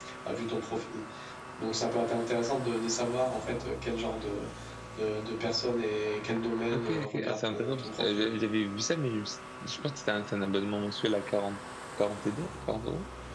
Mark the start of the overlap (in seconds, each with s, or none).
6.7 s